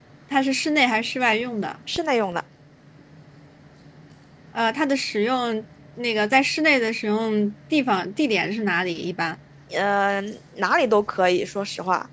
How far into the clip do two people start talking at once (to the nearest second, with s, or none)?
none